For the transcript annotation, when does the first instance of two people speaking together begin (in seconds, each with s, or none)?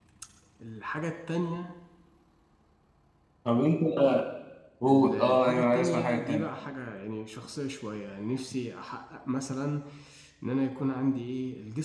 4.9 s